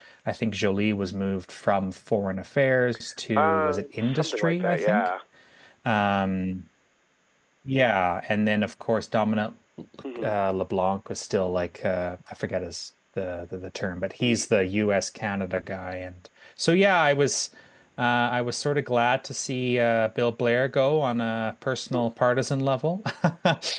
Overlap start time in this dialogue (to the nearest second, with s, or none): 3 s